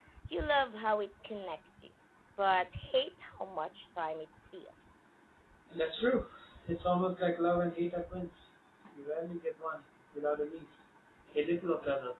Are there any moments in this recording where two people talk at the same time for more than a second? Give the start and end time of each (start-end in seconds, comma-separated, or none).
none